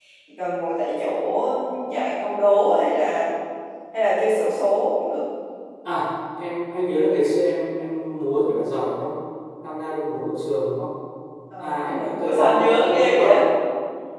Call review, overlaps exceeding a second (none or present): present